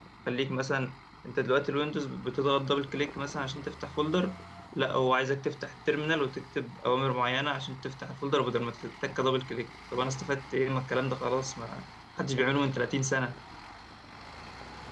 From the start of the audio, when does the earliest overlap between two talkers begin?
none

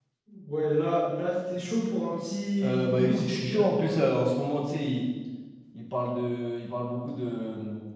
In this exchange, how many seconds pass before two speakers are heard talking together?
2.6 s

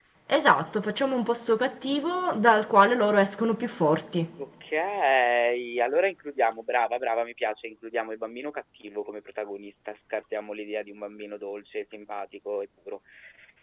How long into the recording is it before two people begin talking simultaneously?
none

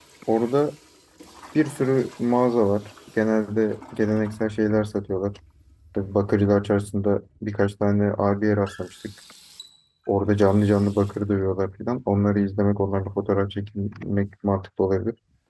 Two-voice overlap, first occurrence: none

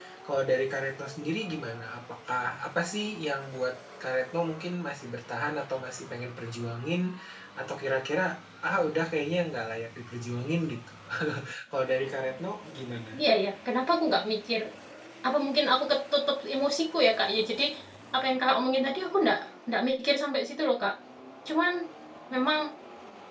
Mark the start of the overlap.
none

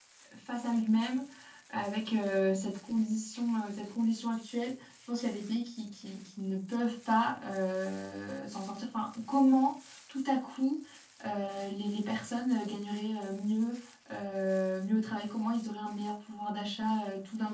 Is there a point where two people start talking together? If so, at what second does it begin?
none

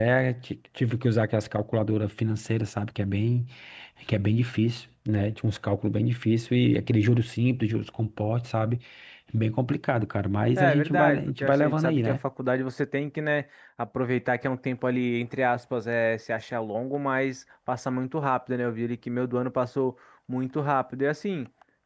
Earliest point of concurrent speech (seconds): 10.6 s

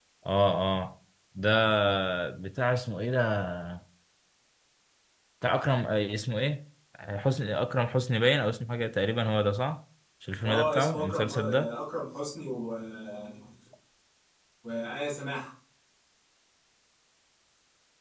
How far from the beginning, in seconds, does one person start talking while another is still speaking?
10.4 s

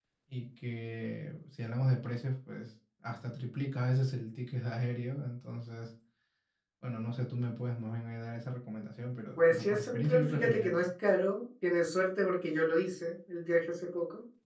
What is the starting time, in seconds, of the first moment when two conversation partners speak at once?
9.4 s

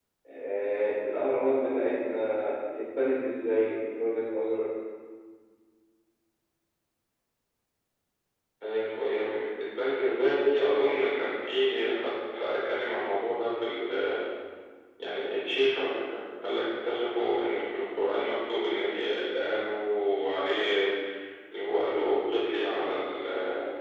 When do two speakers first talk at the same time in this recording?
none

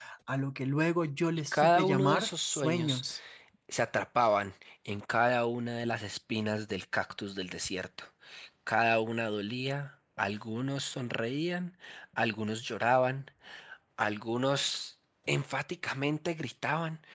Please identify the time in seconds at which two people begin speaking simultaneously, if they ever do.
1.5 s

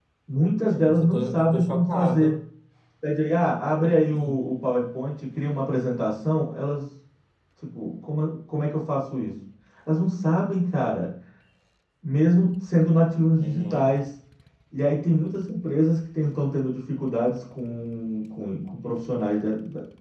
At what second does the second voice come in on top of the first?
0.7 s

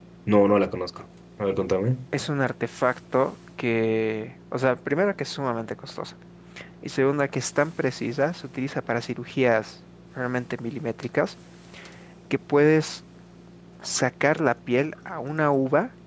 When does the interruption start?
none

